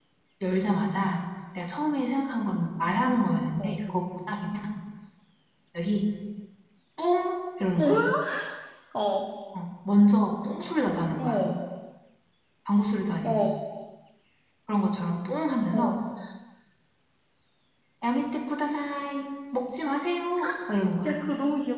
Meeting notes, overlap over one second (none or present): none